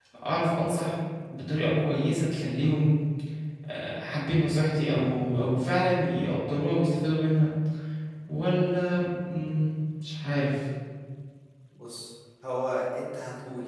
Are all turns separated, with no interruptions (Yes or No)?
Yes